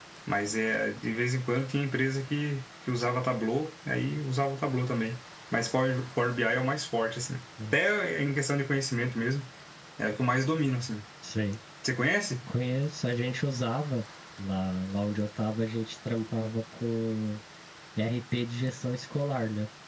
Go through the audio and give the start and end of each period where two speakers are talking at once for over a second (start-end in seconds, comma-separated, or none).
none